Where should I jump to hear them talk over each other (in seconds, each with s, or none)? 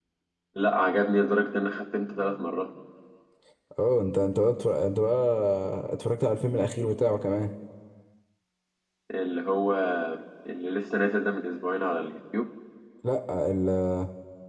none